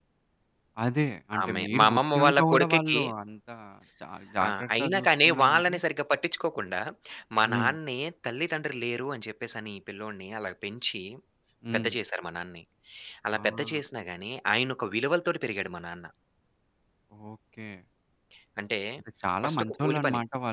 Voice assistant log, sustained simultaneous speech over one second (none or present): present